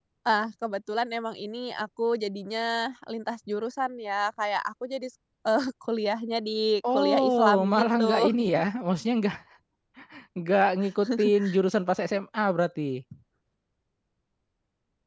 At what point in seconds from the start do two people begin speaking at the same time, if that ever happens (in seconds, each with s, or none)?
6.9 s